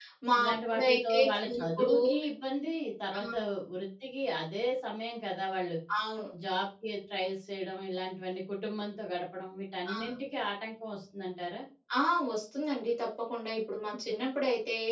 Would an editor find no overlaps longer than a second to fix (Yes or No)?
No